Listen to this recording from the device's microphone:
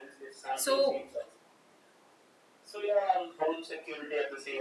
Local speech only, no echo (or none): so